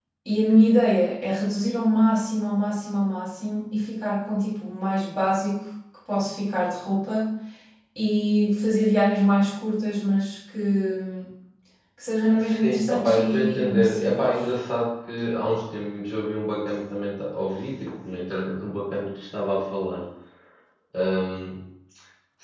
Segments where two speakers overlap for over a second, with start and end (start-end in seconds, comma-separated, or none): 12.6-14.3